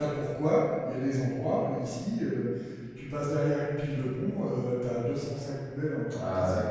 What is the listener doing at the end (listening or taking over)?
taking over